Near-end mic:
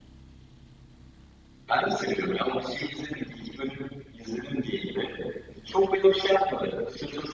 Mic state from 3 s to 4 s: echo only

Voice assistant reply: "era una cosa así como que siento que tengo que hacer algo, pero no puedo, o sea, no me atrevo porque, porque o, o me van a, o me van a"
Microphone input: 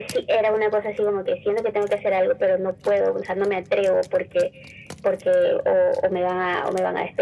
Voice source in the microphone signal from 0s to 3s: echo only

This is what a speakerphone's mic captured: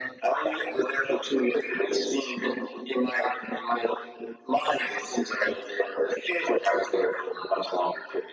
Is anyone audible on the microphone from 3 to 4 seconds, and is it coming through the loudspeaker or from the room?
echo only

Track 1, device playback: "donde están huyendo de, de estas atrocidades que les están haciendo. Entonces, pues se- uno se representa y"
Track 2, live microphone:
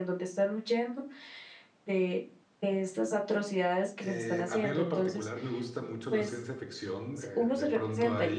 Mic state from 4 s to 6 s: both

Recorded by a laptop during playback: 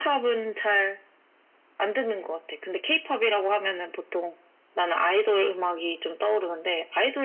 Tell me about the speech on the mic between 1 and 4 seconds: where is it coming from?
echo only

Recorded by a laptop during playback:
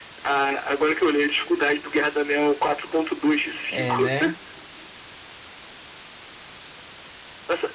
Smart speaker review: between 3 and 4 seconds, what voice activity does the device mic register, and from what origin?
both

